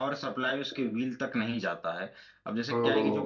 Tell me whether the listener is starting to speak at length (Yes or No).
No